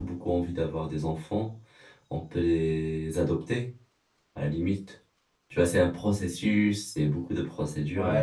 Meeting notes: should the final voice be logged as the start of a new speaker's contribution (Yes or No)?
Yes